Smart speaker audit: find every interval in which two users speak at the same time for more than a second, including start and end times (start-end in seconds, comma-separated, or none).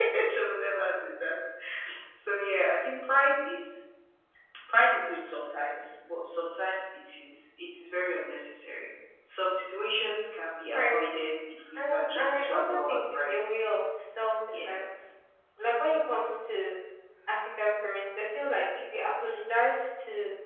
11.8-13.3